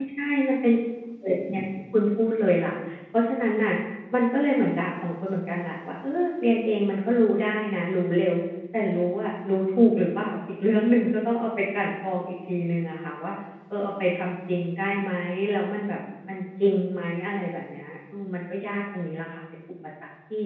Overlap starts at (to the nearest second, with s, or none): none